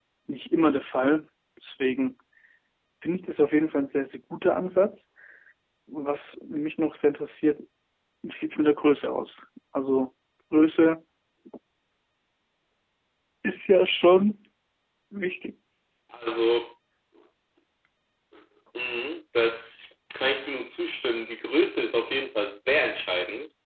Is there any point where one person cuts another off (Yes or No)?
No